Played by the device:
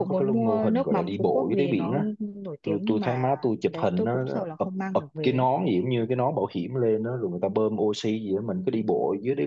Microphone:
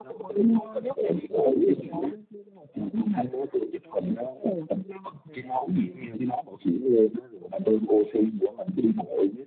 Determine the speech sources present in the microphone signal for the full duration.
echo only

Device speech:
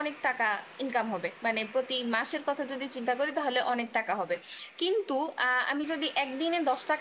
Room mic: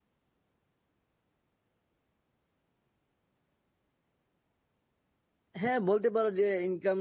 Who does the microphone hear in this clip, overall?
user only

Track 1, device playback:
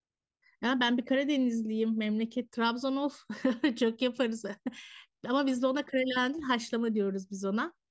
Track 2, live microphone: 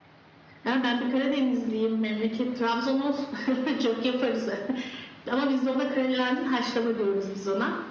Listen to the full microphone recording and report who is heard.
echo only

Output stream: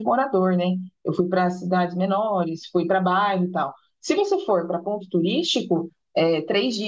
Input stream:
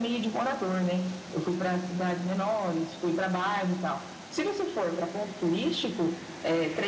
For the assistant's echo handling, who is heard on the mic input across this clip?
echo only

